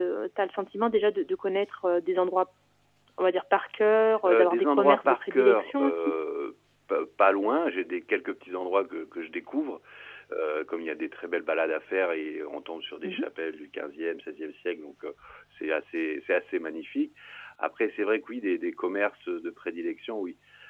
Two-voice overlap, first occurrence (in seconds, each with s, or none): 4.2 s